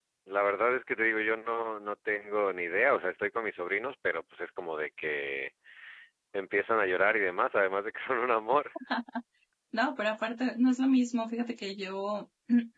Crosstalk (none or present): none